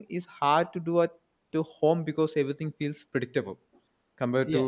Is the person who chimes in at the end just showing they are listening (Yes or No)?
No